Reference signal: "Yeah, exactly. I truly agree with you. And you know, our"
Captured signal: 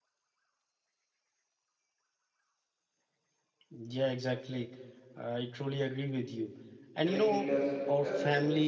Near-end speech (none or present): present